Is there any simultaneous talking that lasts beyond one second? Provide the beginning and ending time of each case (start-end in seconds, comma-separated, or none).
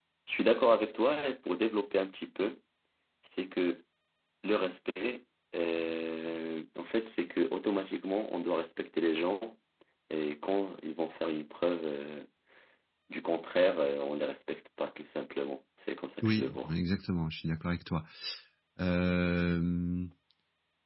none